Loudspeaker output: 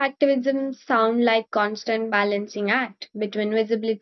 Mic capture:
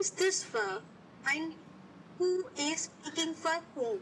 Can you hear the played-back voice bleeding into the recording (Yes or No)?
No